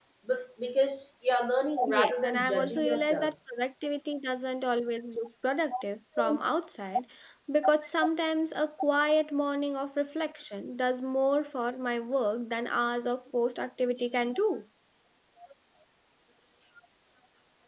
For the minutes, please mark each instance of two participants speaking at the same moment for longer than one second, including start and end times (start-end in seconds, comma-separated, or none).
1.9-3.3